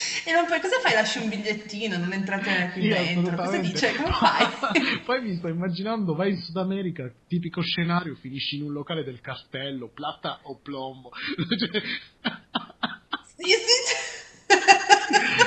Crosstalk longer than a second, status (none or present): present